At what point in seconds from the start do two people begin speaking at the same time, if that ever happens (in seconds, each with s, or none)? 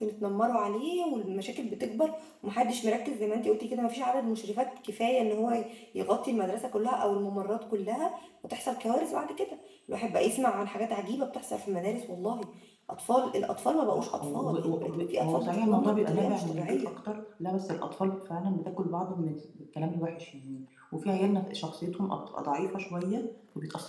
13.9 s